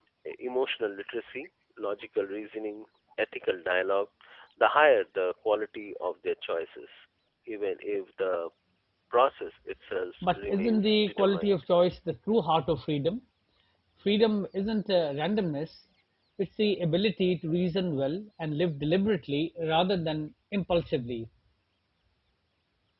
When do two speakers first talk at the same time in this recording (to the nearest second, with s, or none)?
10 s